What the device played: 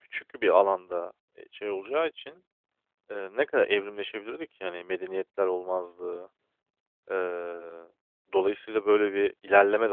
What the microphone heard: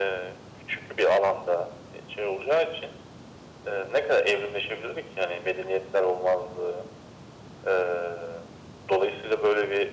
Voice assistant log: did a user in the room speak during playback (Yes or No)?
No